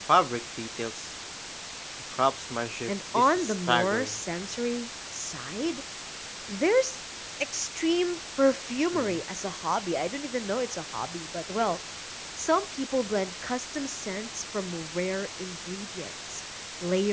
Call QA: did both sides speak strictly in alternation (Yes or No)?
No